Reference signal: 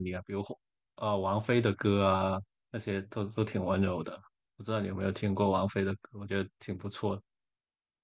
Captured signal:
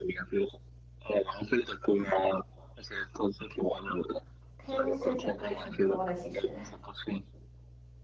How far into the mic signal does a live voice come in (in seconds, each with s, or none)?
4.6 s